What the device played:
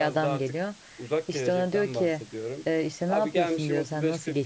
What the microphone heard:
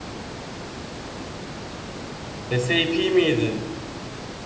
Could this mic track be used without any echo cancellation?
Yes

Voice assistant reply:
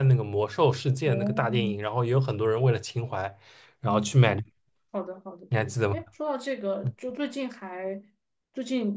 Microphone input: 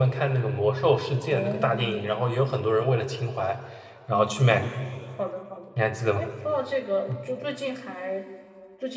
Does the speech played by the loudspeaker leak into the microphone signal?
Yes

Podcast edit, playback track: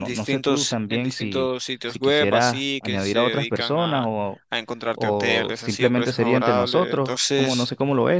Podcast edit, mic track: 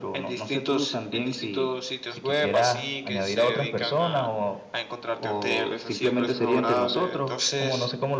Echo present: Yes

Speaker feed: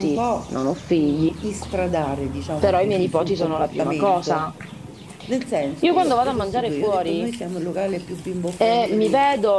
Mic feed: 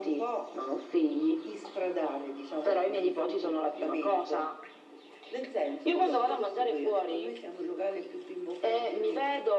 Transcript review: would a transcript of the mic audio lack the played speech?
No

